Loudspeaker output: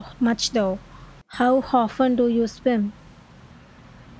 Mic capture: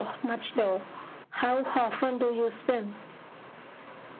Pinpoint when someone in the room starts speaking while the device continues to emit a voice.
none

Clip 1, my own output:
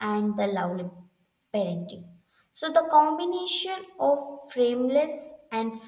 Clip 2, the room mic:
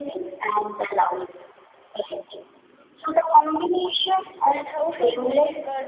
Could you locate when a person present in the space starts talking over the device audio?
4.6 s

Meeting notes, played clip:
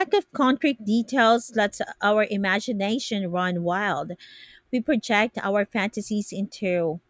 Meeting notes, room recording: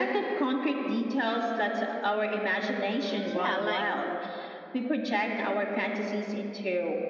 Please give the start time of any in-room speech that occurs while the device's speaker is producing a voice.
2.6 s

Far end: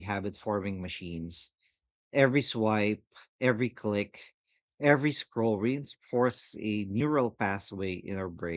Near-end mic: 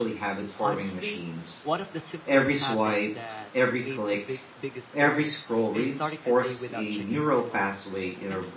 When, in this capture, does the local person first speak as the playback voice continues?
0.6 s

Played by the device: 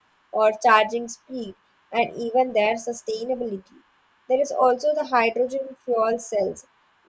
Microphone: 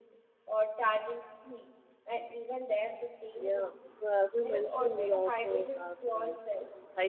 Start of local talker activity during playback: 3.4 s

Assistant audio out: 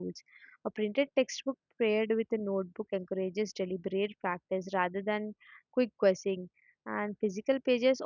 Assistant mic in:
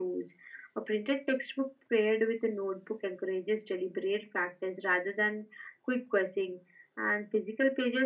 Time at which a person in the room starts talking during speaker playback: none

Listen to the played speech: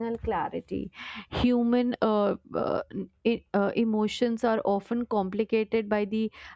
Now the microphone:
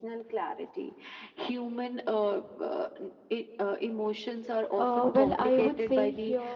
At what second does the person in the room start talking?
4.8 s

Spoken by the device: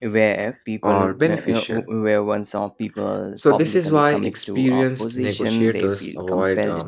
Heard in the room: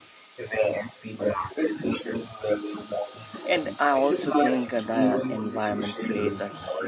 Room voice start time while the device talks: 3.4 s

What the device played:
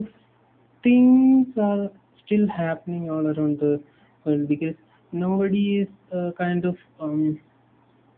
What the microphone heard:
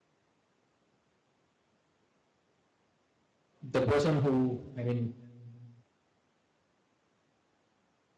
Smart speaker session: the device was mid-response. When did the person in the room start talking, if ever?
3.6 s

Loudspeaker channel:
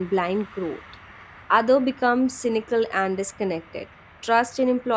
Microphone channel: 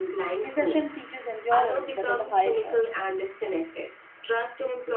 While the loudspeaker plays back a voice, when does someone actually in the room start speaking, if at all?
0.4 s

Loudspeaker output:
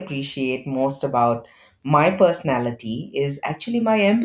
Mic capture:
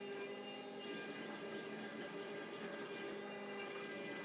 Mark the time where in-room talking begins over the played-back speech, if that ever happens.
none

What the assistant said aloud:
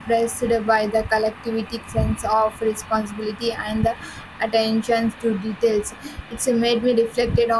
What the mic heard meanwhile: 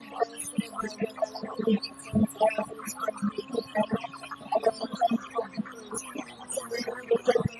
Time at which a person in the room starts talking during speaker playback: none

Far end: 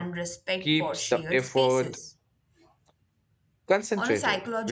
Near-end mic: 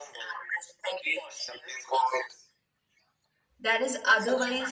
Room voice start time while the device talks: 3.6 s

